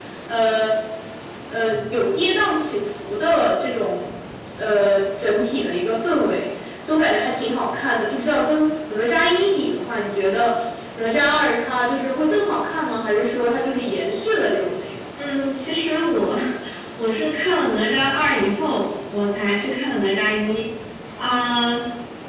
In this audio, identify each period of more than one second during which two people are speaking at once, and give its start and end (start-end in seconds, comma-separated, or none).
none